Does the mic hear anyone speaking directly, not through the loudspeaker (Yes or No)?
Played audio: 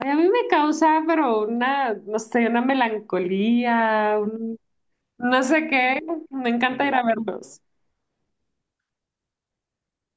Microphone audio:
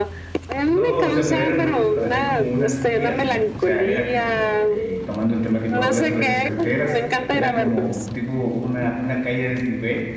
Yes